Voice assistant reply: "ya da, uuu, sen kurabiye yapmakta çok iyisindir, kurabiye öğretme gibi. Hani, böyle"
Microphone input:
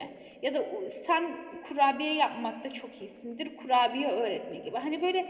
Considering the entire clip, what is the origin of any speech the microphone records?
echo only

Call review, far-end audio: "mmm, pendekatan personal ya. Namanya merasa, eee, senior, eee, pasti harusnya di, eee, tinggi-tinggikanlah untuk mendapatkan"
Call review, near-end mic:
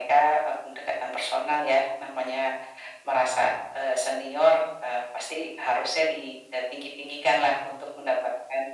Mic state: echo only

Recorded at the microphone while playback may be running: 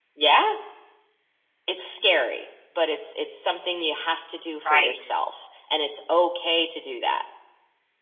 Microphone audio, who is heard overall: both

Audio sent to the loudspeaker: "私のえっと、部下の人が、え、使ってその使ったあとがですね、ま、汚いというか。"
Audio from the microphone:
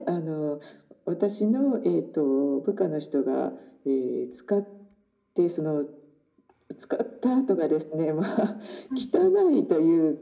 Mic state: both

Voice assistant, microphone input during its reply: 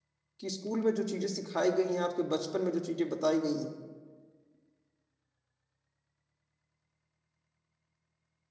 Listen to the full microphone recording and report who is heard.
user only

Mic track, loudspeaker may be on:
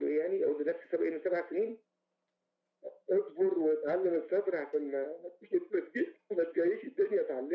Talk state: echo only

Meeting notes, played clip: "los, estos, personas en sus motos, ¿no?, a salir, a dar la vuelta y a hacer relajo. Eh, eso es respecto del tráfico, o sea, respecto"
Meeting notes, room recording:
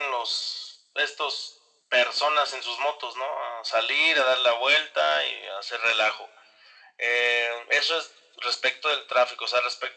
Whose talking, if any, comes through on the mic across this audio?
echo only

